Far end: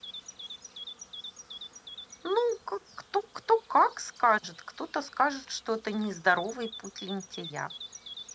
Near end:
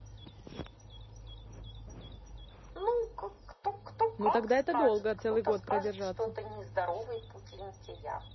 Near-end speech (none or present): present